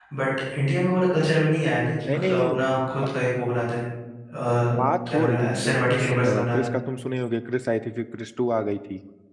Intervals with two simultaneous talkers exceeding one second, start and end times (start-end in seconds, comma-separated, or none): 5.1-6.7